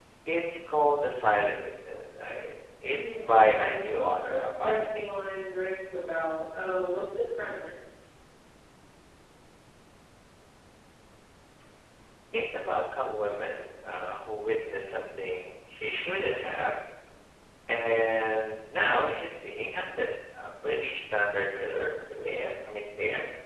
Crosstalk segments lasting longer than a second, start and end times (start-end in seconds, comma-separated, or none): 2.9-5.1